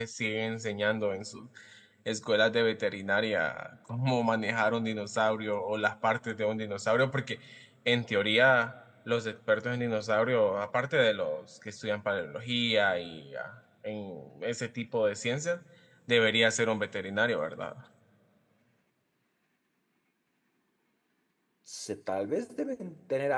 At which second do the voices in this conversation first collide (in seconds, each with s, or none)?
none